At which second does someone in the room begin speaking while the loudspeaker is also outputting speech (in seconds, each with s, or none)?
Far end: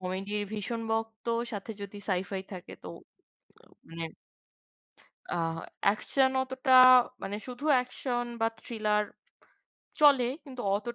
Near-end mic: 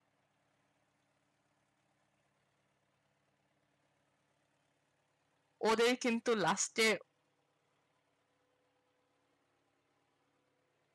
5.7 s